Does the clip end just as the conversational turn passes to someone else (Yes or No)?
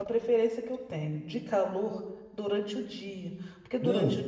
No